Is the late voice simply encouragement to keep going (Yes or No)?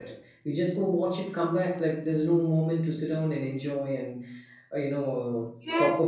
No